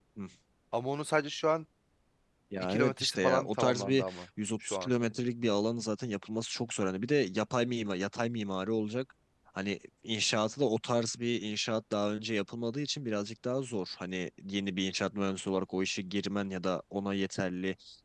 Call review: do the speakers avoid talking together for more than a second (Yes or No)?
No